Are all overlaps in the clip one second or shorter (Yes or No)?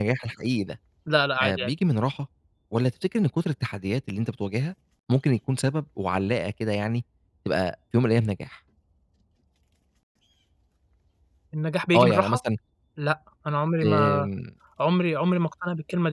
Yes